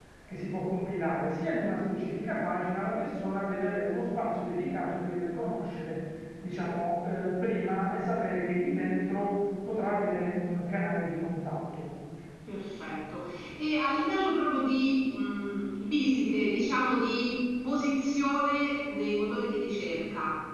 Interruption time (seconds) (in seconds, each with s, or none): none